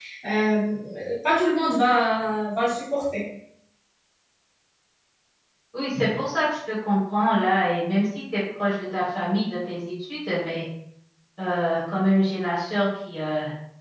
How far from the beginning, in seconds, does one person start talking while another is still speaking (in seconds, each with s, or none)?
none